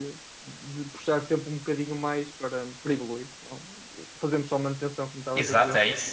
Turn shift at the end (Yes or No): Yes